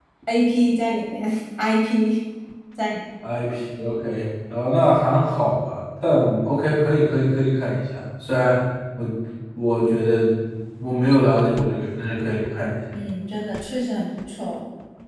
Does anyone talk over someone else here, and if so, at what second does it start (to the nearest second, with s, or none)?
none